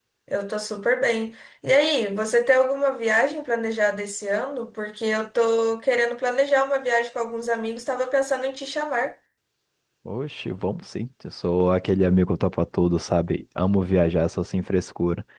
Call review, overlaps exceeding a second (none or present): none